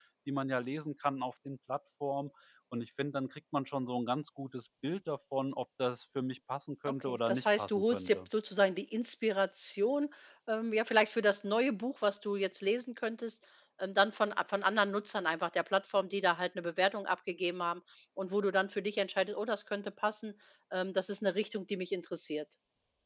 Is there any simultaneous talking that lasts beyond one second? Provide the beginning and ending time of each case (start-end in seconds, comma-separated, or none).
6.8-8.3